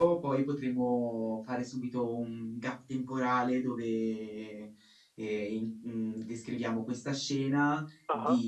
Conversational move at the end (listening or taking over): listening